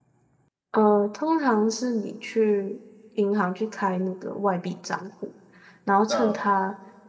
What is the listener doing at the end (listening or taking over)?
listening